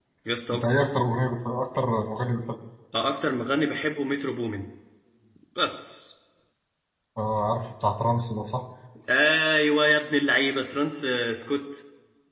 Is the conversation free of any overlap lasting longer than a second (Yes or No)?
Yes